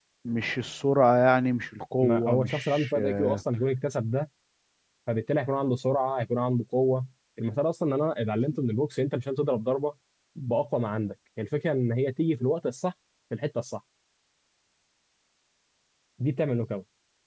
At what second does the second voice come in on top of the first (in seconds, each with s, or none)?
2.0 s